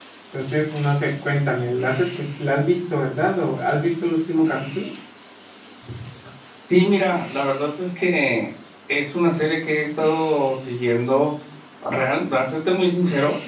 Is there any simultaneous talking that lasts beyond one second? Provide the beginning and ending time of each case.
none

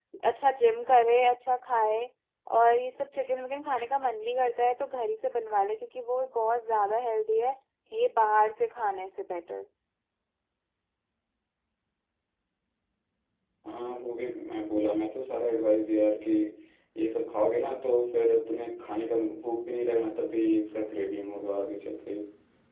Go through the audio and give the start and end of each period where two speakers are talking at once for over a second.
none

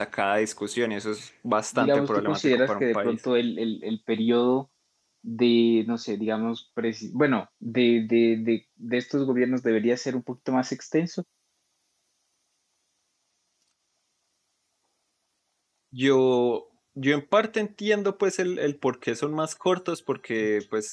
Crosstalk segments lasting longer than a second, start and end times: 1.7-3.2

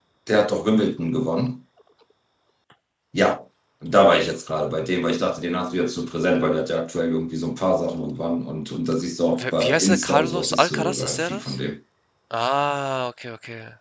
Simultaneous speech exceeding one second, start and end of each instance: 9.4-11.6

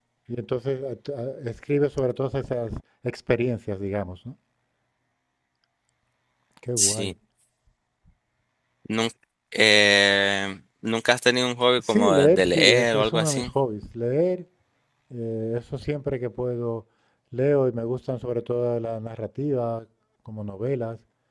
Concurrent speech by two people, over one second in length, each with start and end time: 11.8-13.5

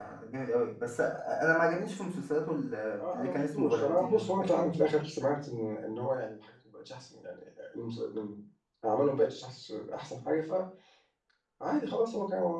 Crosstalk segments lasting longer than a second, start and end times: 3.1-4.8

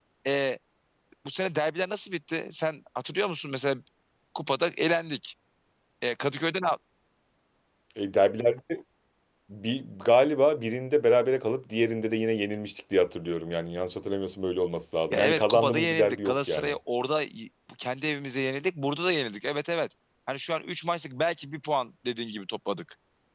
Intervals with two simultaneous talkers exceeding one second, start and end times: 15.1-16.7

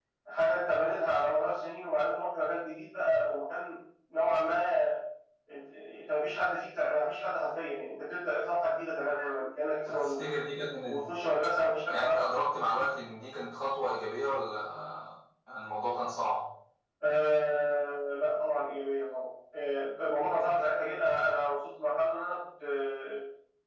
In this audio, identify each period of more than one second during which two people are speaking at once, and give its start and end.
none

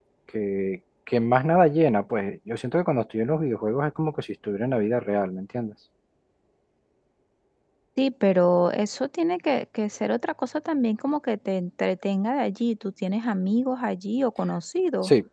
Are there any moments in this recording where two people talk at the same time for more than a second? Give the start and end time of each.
none

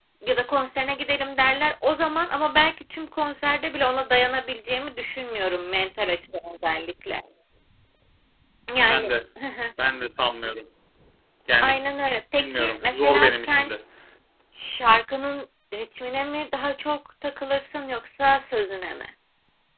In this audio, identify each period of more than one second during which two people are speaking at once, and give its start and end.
12.4-13.7

